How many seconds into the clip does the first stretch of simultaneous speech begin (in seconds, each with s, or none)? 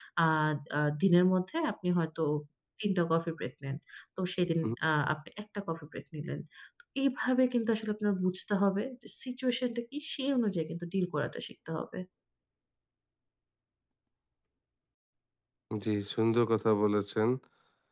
none